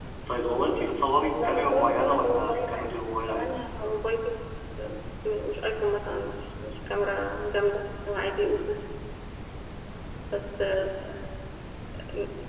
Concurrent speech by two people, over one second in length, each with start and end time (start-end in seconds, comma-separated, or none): 1.4-3.5